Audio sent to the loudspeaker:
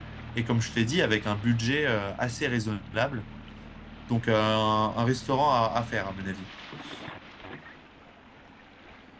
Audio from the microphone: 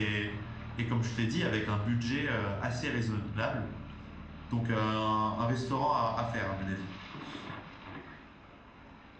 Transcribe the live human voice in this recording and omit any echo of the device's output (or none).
none